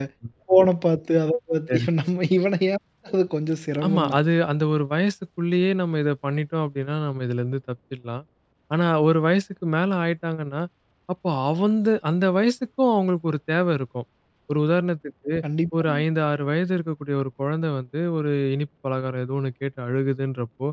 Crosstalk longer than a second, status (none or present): none